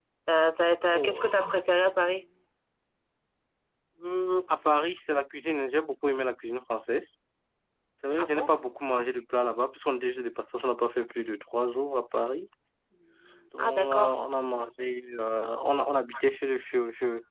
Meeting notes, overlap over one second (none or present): none